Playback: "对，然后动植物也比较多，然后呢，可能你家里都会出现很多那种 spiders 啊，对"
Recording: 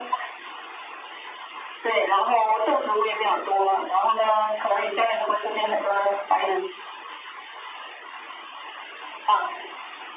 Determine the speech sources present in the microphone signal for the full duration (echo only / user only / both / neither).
echo only